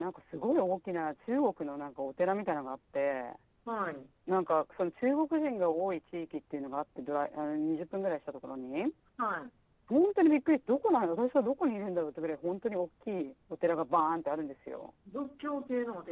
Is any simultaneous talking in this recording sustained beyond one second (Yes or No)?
No